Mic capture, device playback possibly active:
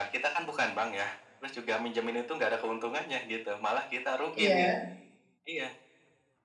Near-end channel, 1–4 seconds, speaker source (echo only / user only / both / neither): echo only